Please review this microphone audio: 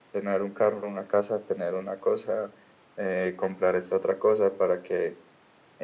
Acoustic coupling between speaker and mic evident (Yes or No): Yes